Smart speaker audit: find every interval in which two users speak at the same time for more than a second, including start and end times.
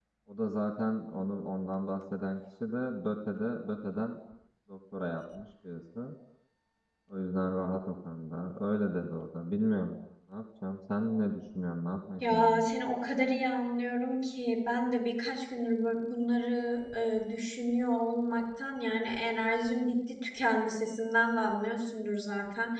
none

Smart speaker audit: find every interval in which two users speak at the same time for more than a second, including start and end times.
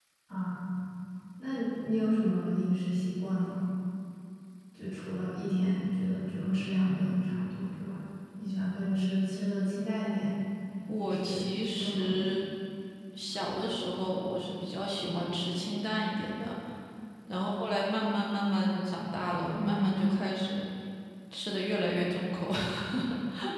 11.0-12.4

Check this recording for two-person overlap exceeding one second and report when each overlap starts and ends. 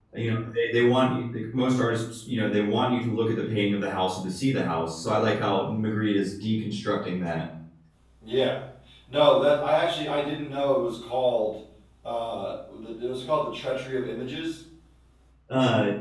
none

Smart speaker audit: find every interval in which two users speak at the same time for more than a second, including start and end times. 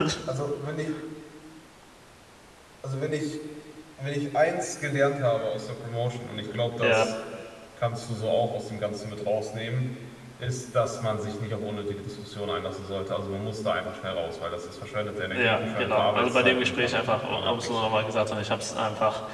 15.3-18.0

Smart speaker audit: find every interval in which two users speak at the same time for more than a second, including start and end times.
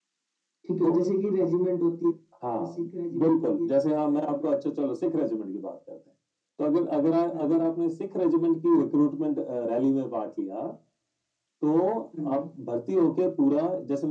2.6-4.5

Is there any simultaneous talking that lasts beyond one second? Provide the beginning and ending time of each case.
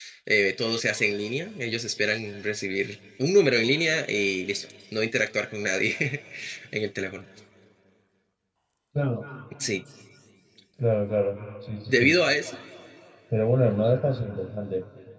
none

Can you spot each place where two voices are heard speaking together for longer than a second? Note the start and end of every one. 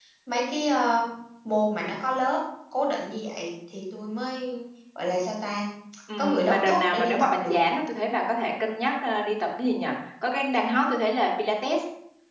6.2-7.6

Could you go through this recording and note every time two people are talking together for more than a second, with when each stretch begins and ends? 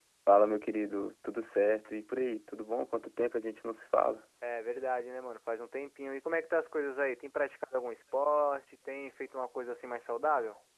none

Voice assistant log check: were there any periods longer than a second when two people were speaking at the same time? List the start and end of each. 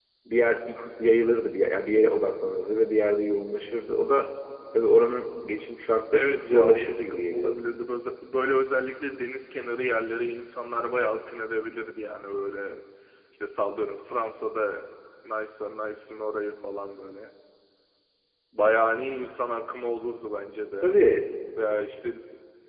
6.1-7.6

